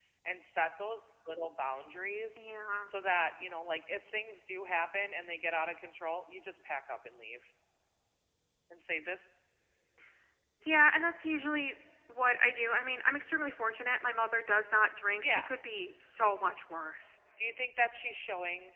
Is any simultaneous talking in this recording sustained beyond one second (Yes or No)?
No